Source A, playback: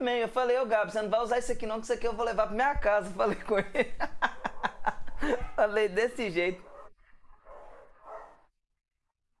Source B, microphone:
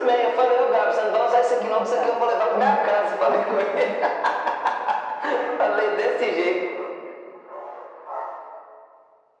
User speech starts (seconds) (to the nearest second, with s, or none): 2 s